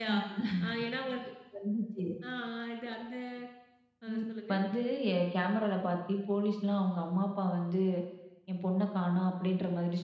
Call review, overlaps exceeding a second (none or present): none